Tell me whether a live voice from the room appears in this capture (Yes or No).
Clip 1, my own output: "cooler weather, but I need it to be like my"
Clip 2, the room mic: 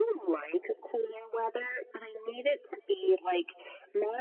No